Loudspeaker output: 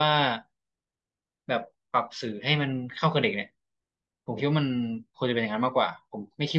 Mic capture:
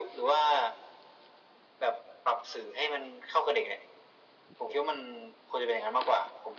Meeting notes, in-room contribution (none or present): none